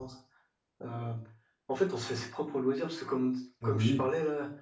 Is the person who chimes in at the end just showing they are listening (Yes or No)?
Yes